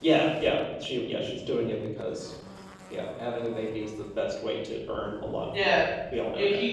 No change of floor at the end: No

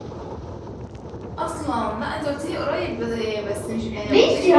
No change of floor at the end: No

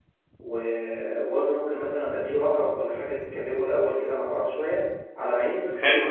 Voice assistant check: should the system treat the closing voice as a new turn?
Yes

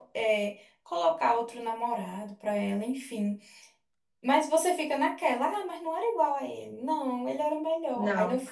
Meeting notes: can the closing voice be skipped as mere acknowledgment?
Yes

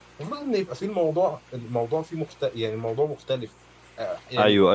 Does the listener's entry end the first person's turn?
Yes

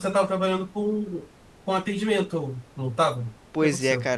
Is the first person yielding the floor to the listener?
Yes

